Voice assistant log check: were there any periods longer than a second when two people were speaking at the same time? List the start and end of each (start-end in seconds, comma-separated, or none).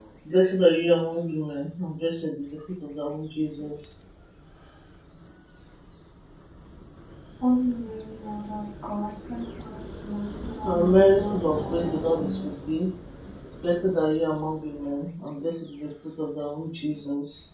10.7-12.4